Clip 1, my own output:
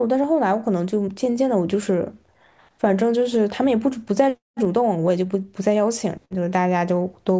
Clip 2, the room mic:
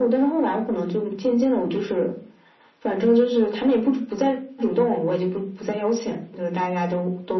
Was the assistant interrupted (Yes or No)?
No